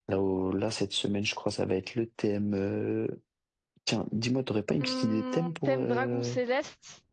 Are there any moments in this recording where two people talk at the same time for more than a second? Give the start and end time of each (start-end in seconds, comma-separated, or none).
4.8-6.3